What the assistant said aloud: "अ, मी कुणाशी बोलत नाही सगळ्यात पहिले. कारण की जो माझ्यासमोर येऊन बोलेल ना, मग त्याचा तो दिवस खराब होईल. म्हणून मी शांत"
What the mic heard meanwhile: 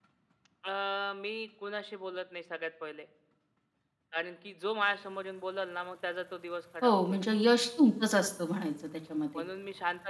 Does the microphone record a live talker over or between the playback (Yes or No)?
Yes